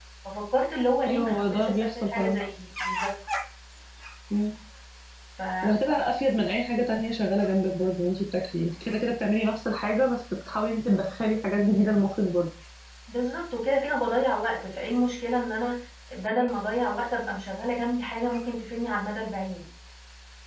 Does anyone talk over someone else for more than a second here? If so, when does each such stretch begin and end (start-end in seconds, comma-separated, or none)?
1.1-2.4